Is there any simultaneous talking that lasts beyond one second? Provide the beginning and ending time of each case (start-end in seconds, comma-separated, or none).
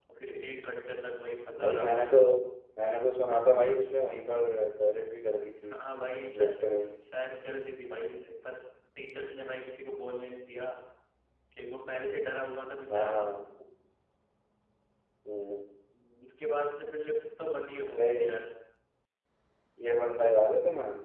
none